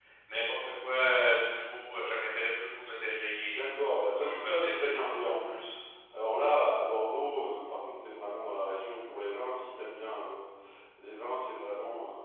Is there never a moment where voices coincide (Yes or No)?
No